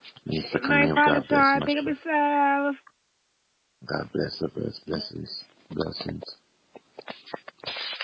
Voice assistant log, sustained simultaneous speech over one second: present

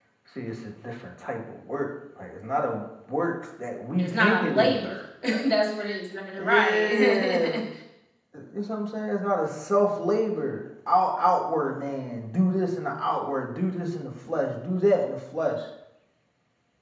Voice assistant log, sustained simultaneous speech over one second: present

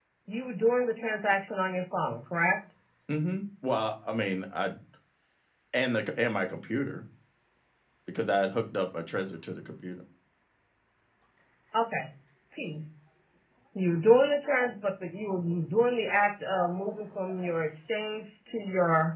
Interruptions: none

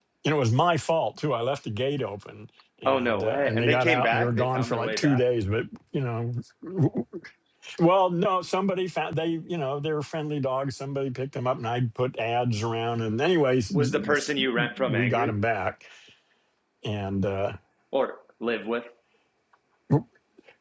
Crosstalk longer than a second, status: present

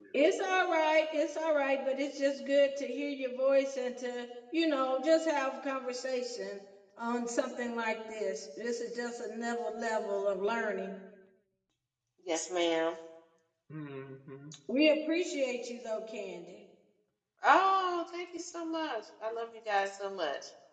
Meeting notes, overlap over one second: none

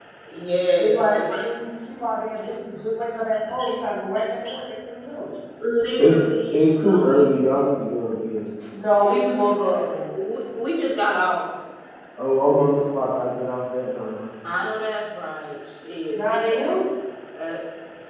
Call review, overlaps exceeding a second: present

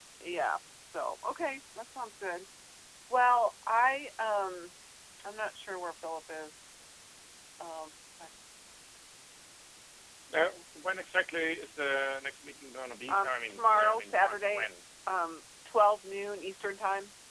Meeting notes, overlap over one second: present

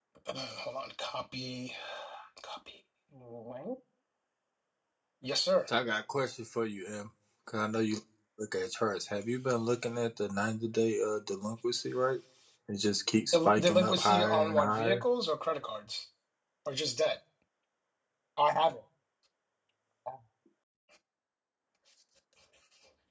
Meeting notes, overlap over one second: present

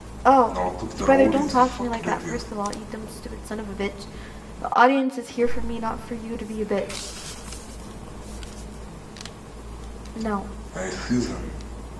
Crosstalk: present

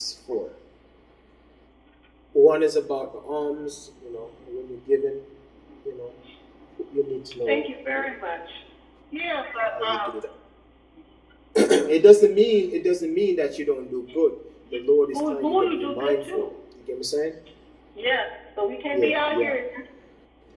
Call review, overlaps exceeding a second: present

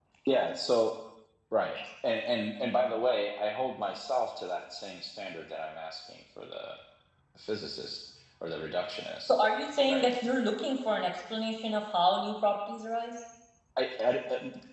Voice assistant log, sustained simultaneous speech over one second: none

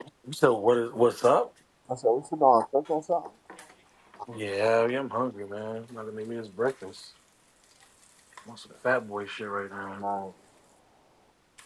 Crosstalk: none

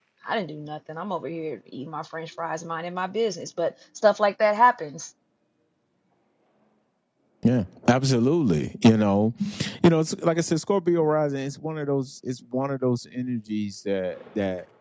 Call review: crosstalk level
none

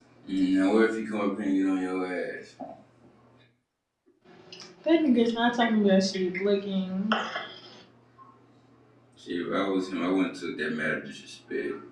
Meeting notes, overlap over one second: none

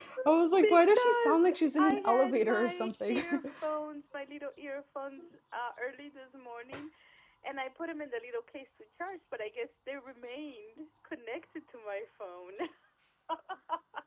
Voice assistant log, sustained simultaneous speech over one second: present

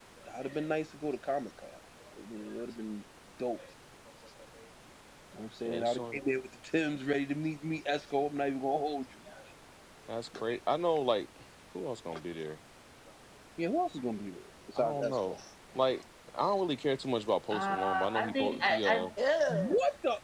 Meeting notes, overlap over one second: present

